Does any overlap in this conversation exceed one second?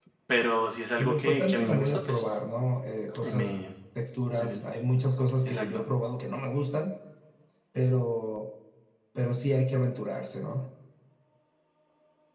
Yes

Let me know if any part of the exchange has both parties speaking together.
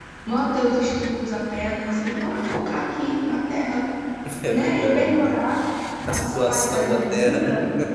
Yes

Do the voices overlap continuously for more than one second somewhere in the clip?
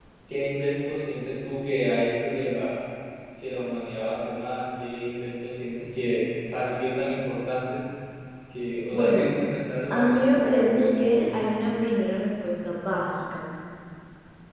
Yes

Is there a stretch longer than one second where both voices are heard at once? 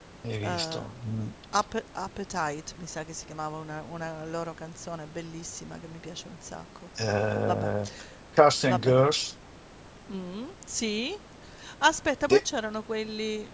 No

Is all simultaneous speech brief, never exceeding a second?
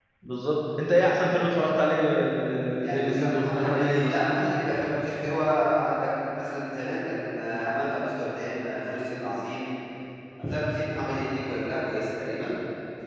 No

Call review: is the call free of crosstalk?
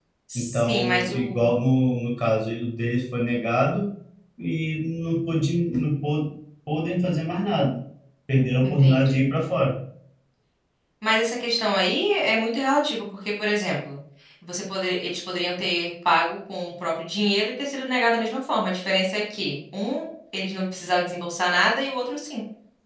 No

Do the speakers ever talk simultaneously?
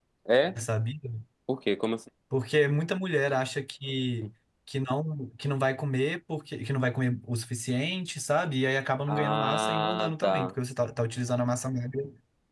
Yes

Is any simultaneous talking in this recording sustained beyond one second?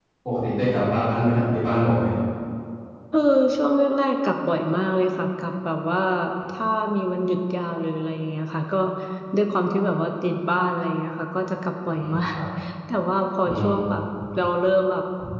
No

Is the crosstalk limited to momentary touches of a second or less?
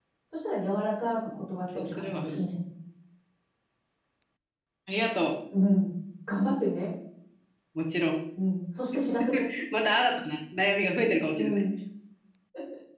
Yes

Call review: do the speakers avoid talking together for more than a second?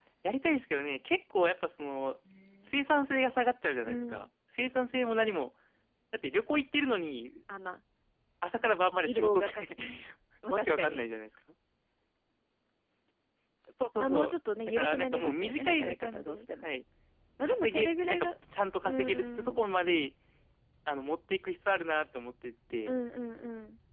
No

